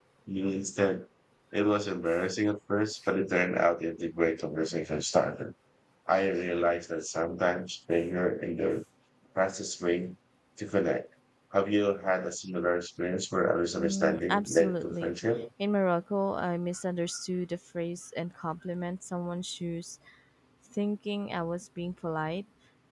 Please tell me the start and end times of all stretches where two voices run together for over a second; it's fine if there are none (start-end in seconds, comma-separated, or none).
13.8-15.1